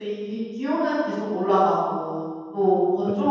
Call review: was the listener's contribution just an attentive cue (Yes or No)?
Yes